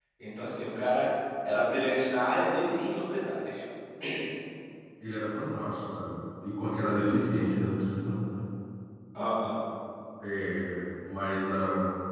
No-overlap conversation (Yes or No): Yes